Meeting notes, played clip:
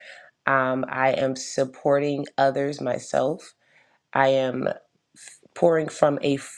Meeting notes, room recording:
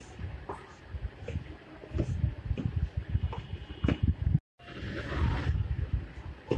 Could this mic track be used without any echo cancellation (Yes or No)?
Yes